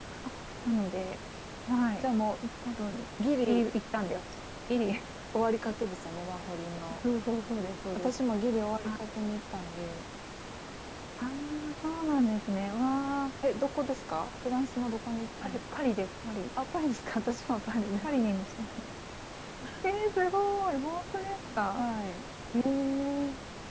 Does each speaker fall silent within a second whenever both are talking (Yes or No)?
Yes